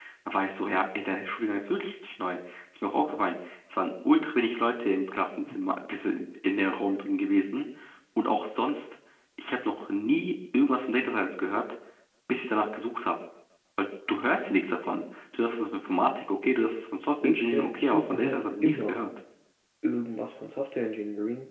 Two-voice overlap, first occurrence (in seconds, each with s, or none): 17.2 s